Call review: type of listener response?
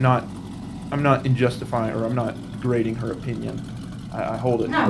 listening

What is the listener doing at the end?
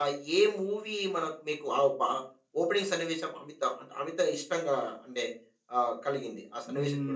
taking over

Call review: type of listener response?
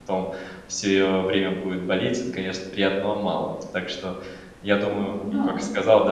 listening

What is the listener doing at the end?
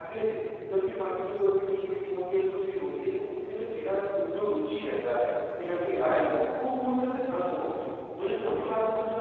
listening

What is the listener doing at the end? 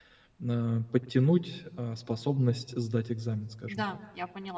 taking over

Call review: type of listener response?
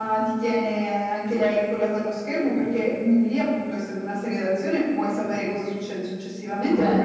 listening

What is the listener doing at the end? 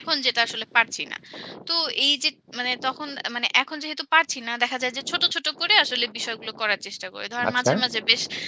listening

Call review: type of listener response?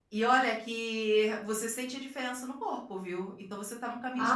taking over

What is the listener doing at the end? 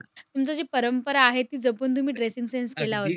taking over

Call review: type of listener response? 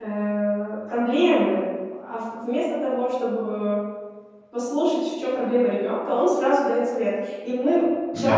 listening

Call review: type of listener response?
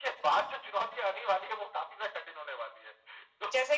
listening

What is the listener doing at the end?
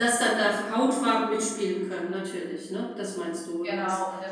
taking over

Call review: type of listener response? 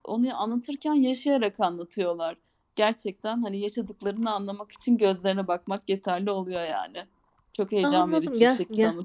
taking over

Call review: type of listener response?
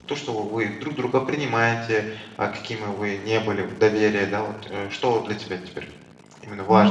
taking over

